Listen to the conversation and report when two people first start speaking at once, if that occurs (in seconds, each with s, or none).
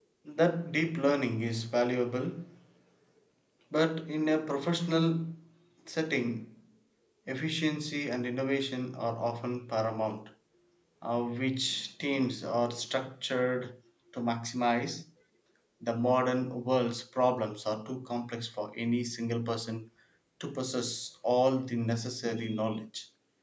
none